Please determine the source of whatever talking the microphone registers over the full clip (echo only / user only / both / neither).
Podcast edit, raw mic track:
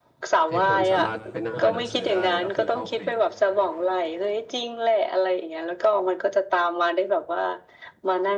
both